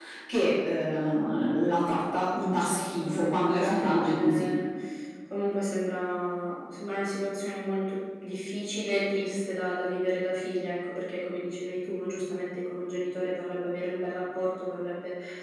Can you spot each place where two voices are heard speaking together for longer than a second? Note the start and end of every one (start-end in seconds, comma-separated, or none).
2.3-4.5